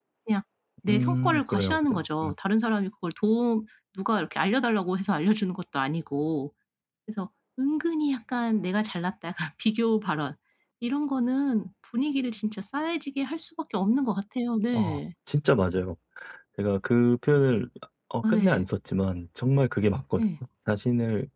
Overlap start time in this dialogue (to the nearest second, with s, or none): 1 s